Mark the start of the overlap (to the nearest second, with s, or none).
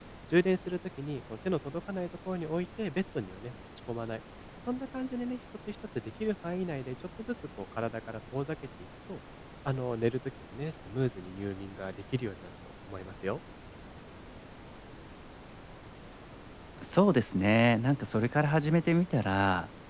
none